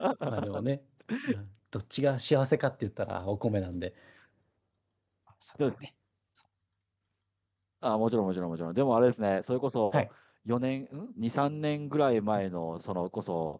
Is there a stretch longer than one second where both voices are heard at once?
No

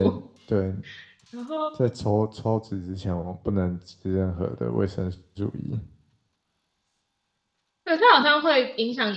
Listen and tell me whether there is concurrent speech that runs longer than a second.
No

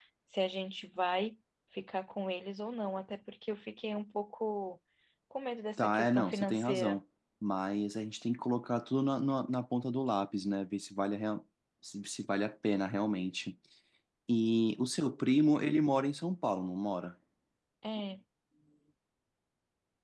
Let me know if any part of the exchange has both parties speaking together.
Yes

